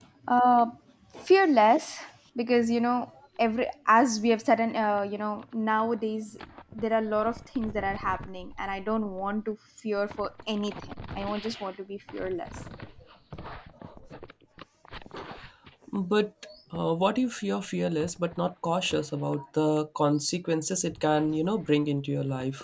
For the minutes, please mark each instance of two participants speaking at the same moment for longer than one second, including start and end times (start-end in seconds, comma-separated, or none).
none